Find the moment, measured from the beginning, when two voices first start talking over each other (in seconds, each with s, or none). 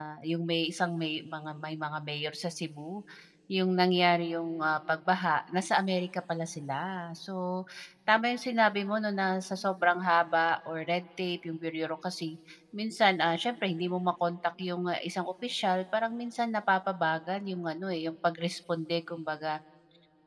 none